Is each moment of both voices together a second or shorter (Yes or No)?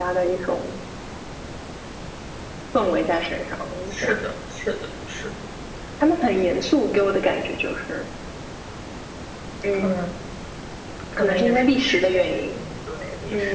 No